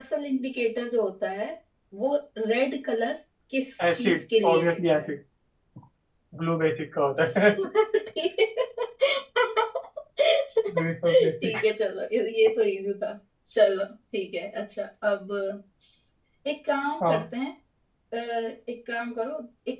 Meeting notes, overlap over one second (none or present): present